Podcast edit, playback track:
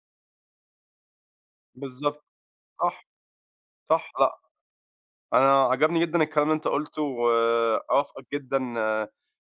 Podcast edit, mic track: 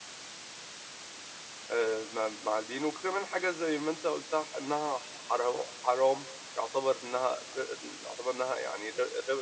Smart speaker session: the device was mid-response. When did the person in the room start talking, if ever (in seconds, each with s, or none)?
1.7 s